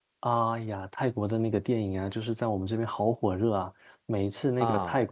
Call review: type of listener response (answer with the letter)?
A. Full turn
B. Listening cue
B